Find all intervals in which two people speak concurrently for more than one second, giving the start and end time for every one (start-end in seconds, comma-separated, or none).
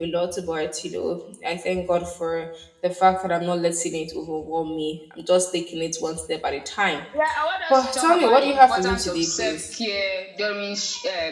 7.7-9.8